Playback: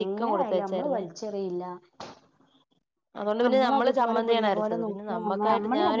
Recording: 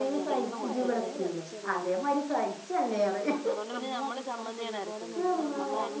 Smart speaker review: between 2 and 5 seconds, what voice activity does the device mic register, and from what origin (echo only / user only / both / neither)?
both